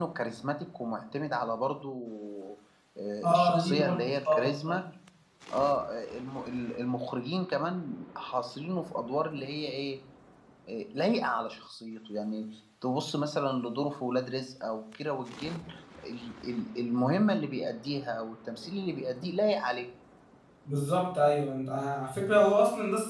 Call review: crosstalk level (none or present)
present